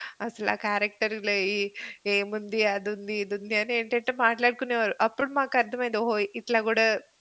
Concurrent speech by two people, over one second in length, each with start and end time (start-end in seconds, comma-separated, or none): none